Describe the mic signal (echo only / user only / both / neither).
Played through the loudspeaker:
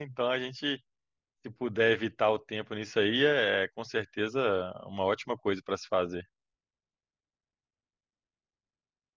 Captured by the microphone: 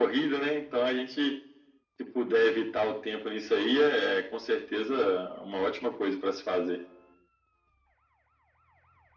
echo only